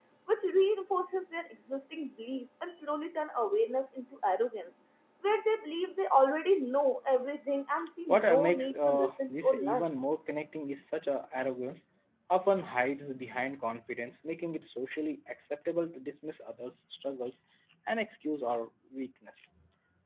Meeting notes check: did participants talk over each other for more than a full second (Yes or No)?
Yes